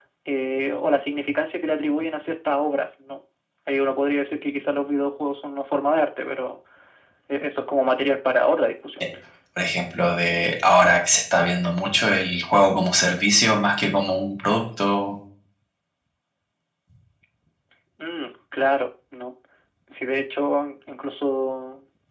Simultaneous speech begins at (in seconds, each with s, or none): none